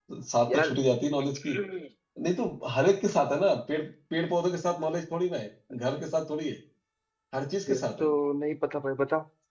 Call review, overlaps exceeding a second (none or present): none